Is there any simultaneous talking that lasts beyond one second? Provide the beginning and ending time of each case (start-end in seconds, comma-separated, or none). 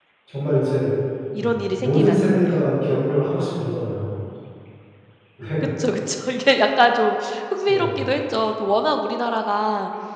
1.4-2.6